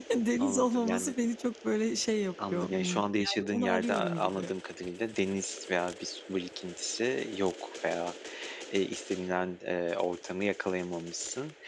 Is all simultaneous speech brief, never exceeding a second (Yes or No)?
No